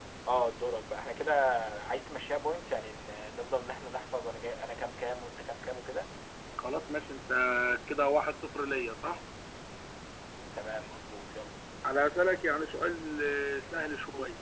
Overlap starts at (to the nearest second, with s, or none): none